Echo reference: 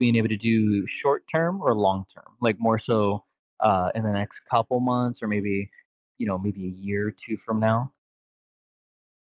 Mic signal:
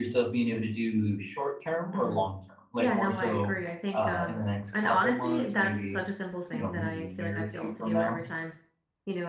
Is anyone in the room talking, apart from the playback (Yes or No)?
Yes